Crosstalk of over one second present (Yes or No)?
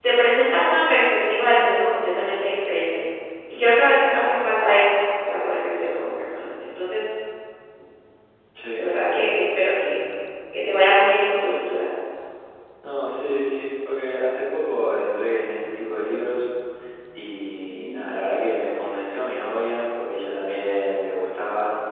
No